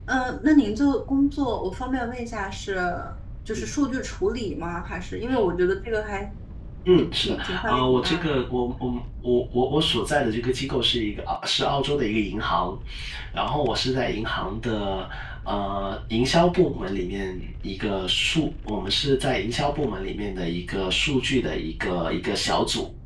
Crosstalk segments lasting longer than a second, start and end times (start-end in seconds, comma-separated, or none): 6.9-8.3